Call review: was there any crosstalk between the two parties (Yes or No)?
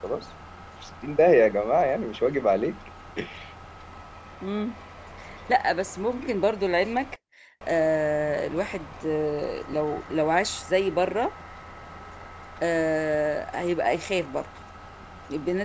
No